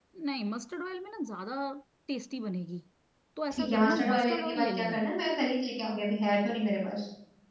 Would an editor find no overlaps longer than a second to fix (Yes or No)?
No